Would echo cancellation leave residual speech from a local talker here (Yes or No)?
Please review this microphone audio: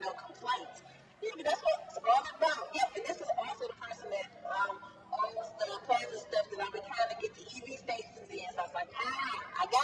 No